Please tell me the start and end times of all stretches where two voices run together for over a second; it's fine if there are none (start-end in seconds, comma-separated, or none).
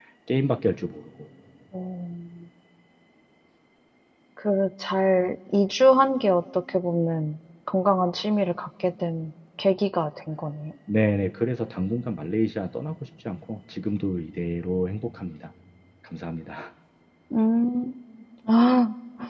none